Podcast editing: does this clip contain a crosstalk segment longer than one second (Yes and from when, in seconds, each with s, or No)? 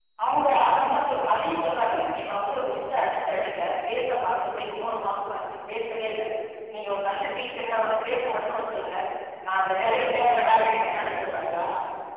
Yes, from 9.7 s